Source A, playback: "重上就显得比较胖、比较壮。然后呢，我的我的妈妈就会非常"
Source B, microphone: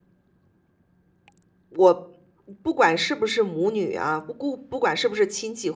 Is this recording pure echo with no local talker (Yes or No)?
No